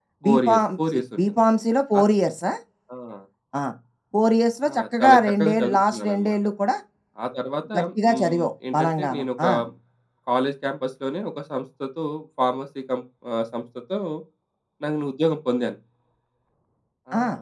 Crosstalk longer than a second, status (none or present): present